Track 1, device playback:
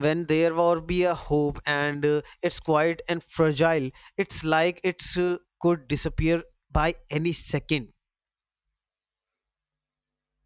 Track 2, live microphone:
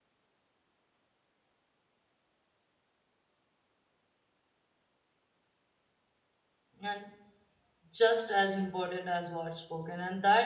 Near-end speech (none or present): present